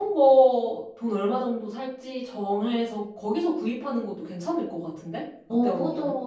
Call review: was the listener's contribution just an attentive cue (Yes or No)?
No